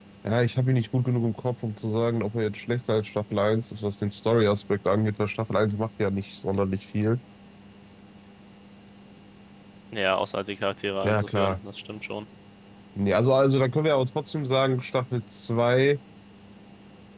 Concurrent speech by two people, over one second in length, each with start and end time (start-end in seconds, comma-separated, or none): none